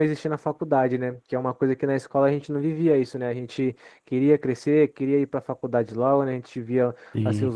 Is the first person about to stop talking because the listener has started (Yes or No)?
No